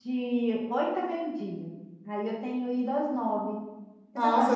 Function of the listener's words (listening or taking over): taking over